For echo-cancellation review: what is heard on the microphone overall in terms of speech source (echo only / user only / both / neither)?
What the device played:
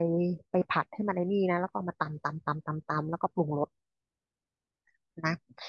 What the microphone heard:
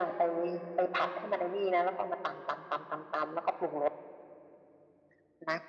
echo only